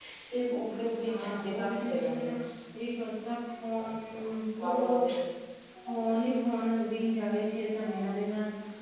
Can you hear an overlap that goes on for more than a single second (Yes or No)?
Yes